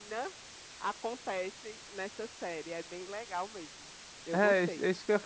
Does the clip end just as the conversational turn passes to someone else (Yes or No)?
Yes